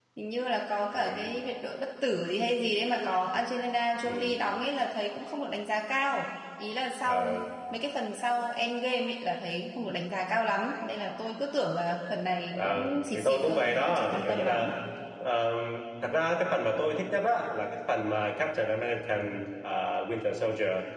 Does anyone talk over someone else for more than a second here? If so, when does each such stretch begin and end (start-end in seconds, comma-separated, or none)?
12.5-14.7